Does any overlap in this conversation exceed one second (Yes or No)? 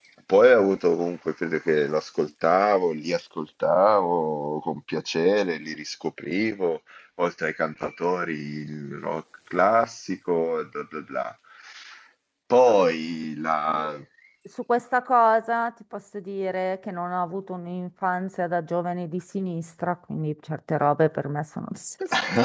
No